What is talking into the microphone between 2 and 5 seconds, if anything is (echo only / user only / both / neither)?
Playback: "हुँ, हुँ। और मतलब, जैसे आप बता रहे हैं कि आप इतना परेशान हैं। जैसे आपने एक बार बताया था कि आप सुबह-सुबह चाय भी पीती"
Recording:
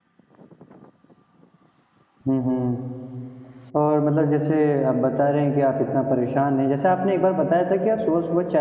echo only